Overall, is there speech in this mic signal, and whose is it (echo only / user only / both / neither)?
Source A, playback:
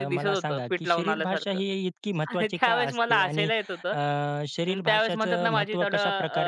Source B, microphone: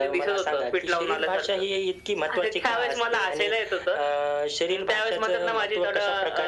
echo only